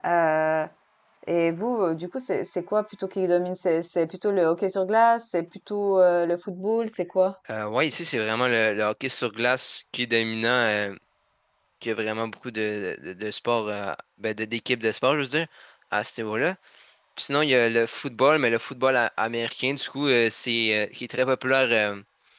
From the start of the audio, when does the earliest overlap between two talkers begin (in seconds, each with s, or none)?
none